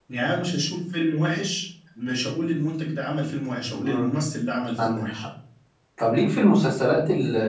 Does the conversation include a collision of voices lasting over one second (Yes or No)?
No